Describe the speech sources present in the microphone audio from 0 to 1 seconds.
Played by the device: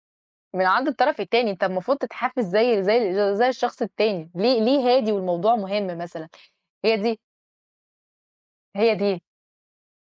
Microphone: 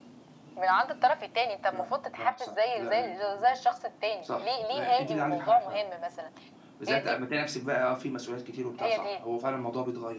echo only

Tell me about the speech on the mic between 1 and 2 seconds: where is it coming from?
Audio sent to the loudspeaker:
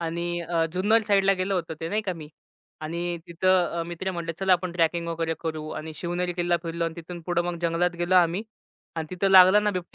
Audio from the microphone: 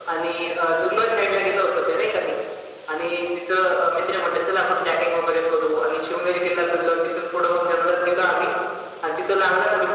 echo only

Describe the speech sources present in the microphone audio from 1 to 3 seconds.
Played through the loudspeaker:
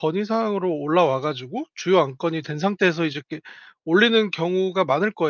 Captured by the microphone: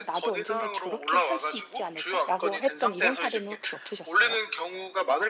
both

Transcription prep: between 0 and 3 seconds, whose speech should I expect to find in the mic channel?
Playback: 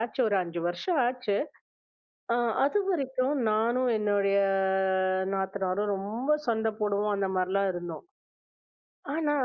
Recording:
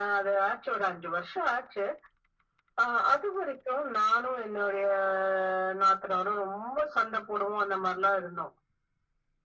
echo only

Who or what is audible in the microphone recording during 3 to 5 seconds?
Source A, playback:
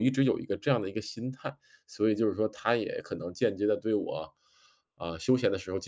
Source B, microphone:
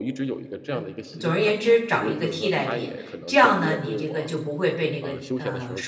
both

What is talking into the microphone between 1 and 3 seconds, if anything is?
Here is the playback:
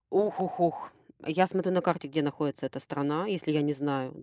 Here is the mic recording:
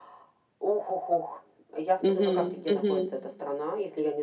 both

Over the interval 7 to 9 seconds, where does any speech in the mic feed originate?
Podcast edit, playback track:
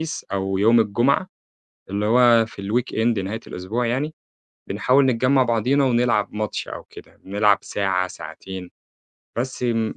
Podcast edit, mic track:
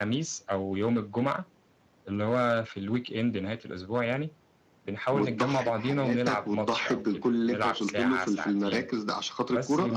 both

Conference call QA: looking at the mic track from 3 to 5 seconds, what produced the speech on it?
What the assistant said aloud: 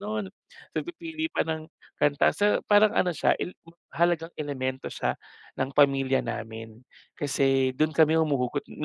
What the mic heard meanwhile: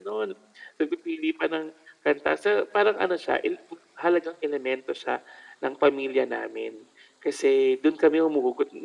echo only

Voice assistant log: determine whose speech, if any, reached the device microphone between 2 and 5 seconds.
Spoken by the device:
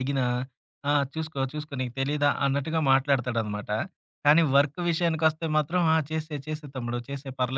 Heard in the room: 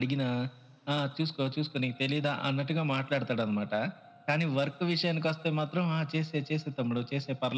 echo only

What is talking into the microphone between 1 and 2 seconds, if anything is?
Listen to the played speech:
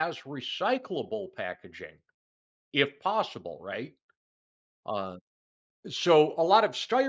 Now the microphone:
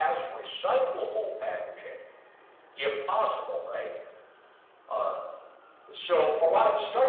echo only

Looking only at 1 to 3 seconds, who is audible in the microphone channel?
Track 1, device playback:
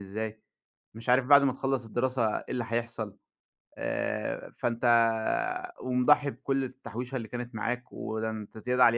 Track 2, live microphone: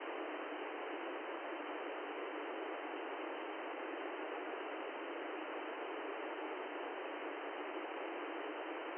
neither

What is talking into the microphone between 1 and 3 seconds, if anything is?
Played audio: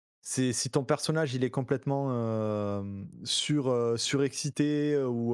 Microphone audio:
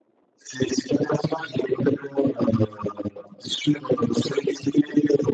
echo only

